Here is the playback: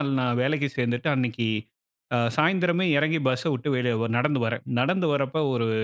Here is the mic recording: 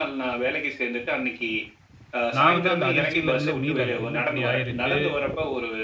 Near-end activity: present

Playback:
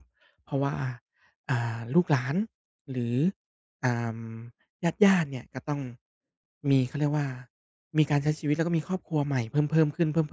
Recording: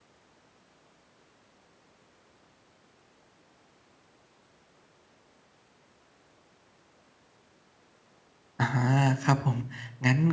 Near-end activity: present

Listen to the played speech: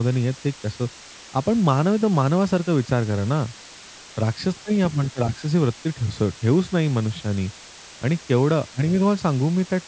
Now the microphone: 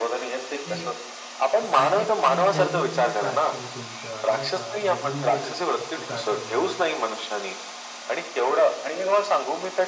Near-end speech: present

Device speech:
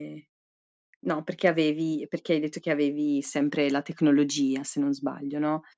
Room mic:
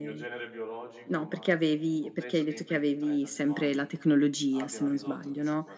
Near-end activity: present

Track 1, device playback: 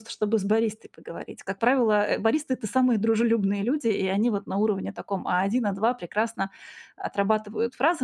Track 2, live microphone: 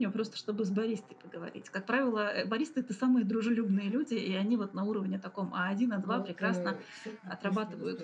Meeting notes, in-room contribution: present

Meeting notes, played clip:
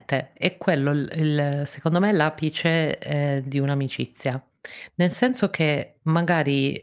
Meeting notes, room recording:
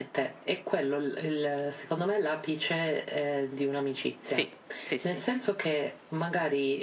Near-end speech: present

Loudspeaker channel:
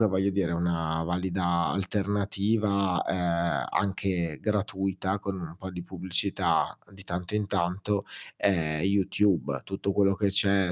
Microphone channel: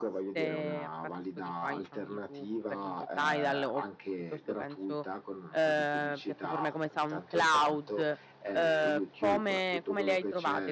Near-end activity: present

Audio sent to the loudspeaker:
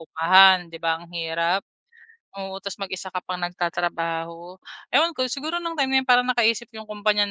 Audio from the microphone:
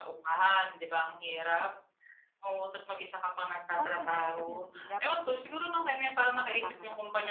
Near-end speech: present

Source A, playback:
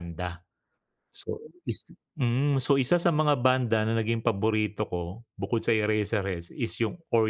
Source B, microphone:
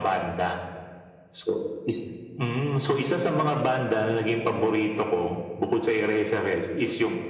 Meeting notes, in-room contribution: none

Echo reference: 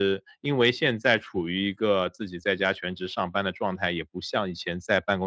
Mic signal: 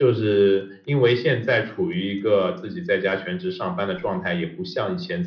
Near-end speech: none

